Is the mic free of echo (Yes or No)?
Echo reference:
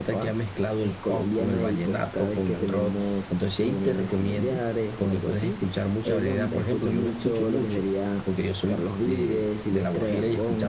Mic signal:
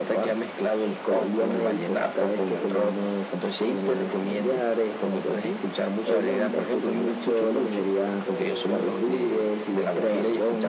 No